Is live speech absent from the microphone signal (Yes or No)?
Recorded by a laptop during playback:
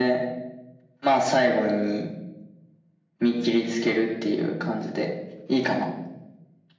Yes